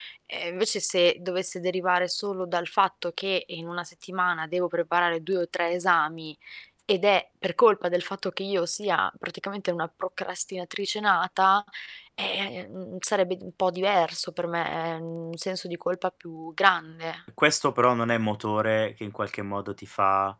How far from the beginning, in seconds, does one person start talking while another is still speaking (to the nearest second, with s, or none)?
none